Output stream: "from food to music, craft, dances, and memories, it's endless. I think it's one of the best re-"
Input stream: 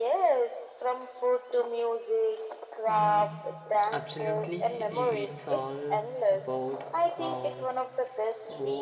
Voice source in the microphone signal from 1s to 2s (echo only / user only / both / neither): echo only